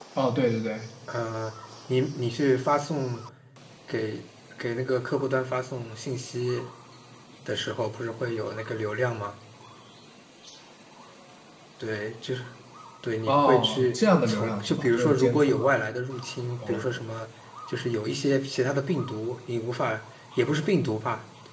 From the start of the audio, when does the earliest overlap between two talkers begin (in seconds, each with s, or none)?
13.3 s